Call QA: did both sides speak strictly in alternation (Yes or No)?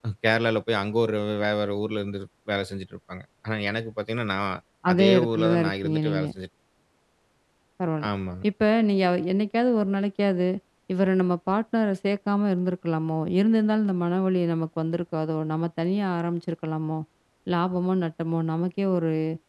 No